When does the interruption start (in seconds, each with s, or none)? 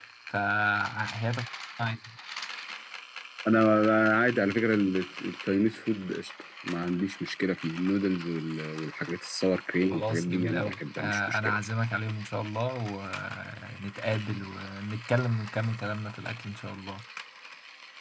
9.9 s